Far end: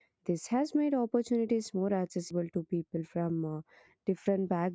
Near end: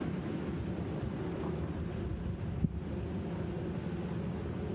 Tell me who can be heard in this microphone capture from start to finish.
neither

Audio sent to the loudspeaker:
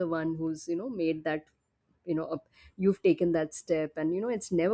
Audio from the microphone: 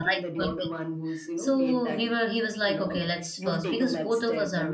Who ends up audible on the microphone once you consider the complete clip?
both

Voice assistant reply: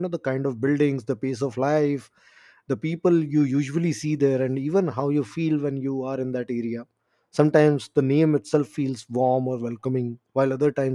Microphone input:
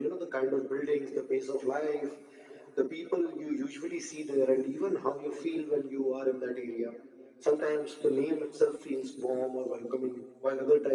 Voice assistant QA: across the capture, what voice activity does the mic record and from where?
echo only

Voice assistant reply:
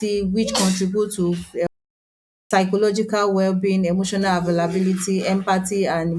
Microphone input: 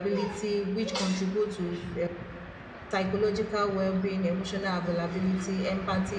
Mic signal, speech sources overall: echo only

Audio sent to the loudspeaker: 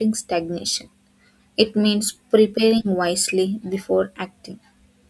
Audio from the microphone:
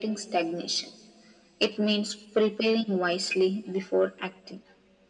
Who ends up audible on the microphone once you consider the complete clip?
echo only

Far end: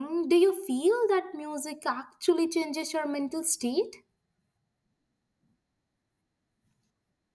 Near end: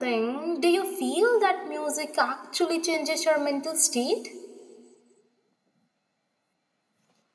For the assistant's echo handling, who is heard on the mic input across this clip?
echo only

